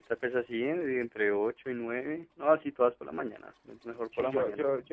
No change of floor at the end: No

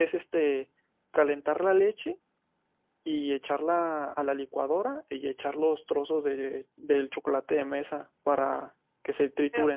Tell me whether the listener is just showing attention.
No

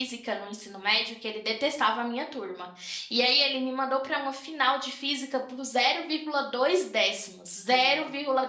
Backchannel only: Yes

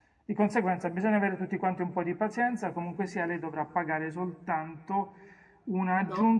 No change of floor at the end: Yes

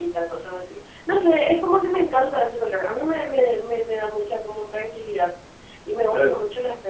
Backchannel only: Yes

